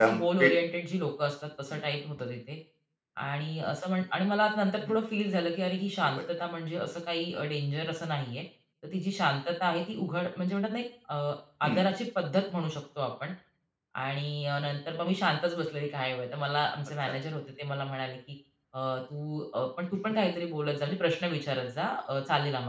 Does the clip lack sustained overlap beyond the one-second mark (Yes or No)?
Yes